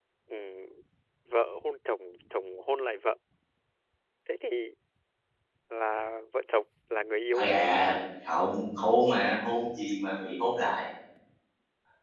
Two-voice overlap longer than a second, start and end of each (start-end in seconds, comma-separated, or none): none